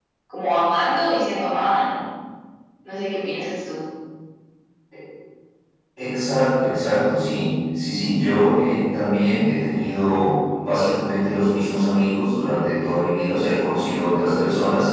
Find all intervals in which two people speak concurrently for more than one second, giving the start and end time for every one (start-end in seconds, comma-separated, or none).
none